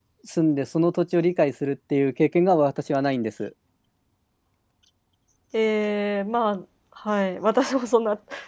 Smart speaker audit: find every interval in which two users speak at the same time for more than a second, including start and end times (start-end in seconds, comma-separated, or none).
none